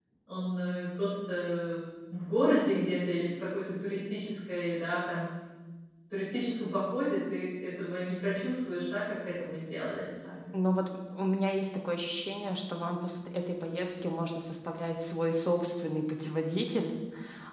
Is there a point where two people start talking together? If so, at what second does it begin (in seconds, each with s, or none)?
none